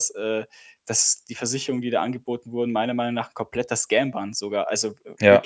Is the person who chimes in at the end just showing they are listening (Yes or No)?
Yes